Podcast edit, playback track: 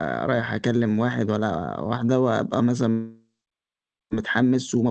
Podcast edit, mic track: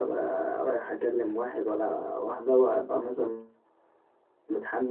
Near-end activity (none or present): none